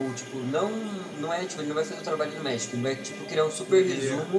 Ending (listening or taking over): listening